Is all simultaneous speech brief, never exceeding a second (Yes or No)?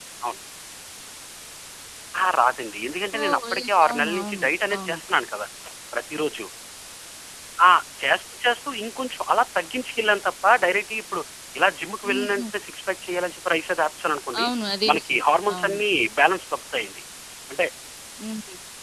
No